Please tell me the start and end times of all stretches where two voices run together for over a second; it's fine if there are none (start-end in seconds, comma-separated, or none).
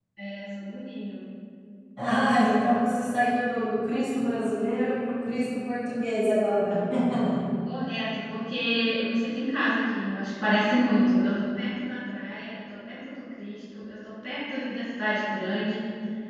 none